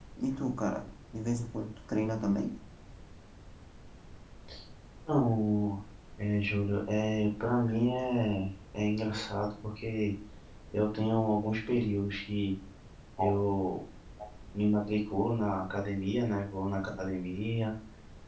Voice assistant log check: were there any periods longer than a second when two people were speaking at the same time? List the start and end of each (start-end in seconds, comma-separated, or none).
none